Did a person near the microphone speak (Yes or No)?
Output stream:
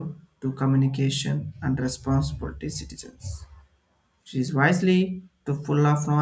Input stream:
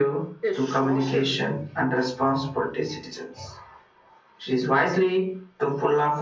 Yes